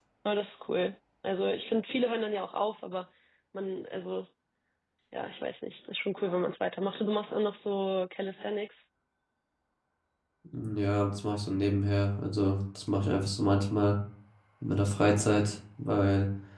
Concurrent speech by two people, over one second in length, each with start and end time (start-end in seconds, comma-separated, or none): none